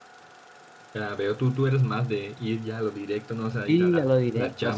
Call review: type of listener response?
taking over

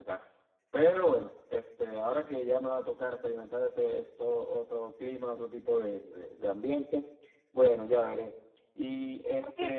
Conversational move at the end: taking over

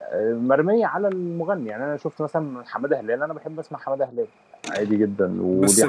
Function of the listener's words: taking over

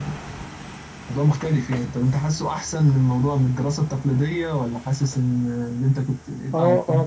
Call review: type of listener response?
taking over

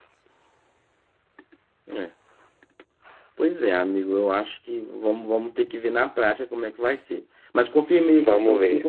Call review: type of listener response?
listening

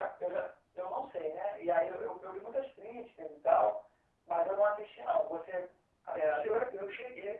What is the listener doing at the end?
taking over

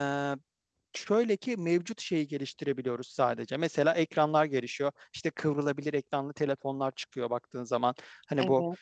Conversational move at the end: listening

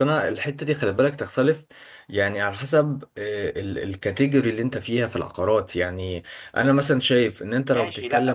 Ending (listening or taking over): taking over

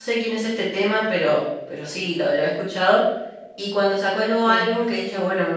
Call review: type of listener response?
listening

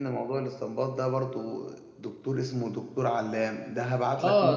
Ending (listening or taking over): taking over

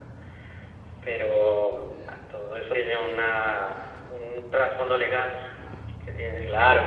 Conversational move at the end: taking over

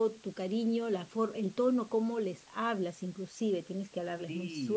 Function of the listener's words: taking over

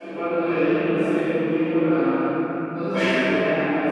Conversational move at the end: listening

